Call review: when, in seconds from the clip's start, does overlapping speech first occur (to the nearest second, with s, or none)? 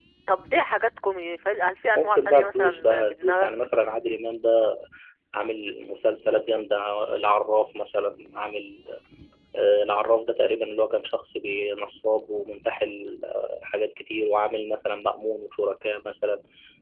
2 s